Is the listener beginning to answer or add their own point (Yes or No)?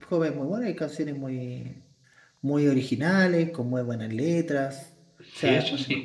Yes